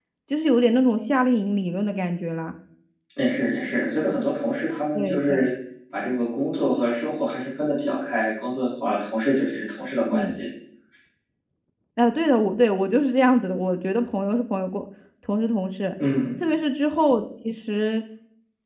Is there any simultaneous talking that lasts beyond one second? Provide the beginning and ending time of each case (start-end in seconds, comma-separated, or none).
none